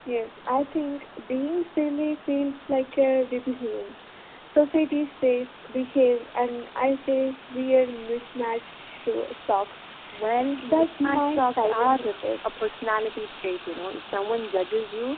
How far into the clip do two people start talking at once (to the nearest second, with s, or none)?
11 s